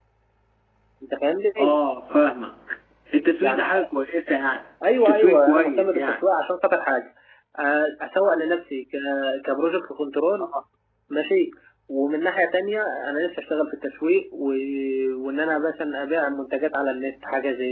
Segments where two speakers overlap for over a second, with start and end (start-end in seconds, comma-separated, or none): 5.0-6.2